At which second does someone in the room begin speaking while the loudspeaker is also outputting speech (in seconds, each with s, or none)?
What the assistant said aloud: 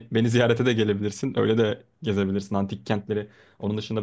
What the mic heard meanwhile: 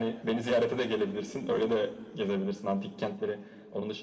none